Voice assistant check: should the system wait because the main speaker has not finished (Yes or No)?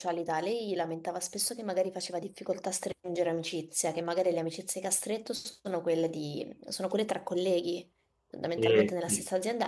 Yes